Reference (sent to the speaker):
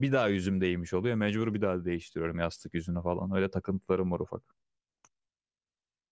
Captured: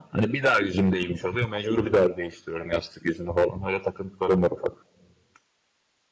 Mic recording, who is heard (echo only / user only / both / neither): echo only